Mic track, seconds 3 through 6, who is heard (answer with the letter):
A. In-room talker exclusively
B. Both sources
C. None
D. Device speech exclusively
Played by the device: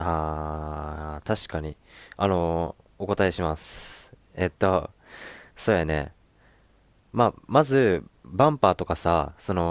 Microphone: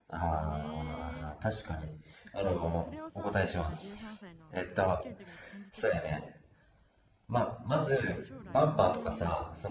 B